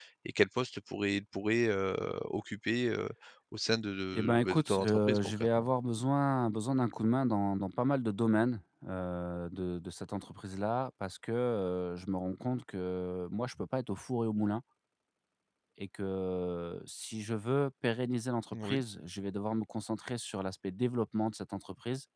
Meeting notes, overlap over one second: present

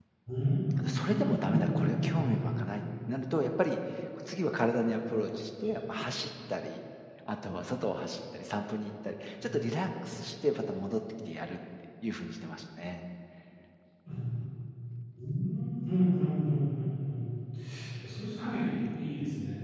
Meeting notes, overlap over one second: present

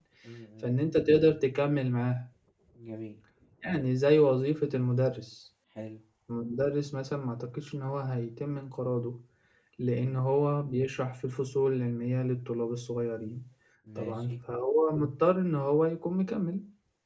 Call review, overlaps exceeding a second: none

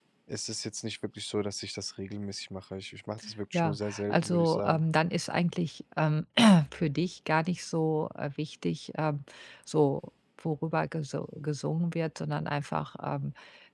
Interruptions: present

